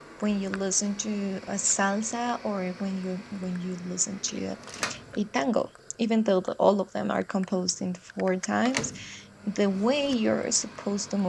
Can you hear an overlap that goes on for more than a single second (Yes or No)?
No